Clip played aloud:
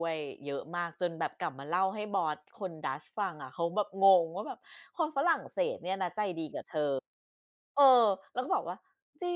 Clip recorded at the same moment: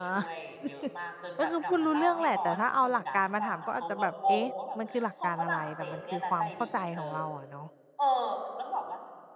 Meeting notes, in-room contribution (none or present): present